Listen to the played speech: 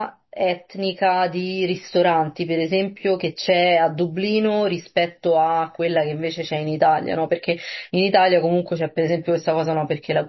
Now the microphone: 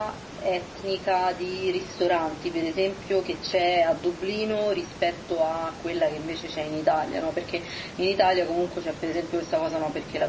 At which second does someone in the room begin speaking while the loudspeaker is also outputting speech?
none

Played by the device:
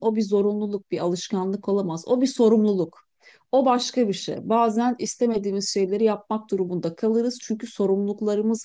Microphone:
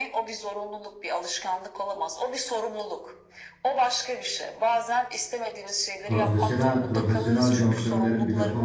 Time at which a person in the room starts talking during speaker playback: 6.1 s

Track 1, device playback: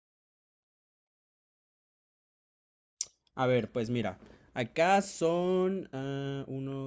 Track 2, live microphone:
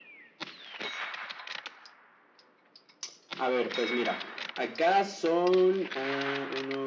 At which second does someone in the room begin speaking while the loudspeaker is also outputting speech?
none

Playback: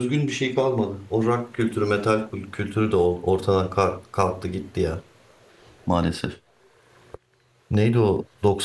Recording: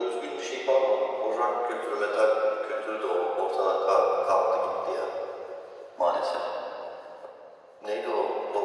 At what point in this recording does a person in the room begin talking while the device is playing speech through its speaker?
none

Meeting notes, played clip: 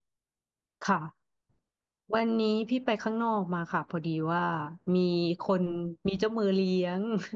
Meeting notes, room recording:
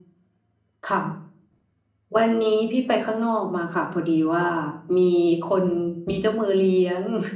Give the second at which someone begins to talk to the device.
none

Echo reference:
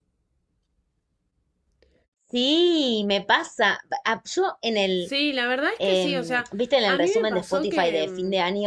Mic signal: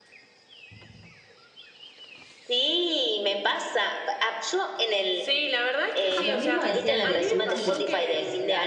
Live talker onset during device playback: 6.2 s

